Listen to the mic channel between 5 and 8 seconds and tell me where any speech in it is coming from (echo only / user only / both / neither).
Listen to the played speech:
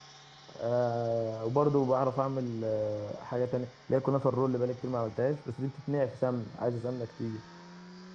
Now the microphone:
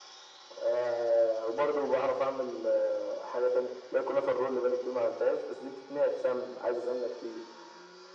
echo only